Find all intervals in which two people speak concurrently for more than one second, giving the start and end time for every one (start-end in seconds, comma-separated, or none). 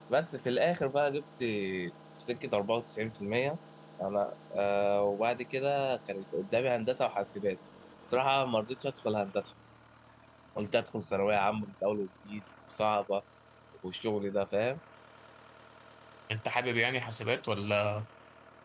none